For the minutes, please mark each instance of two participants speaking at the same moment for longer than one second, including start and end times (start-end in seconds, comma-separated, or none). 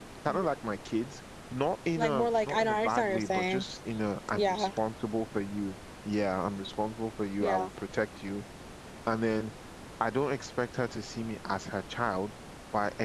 2.0-3.6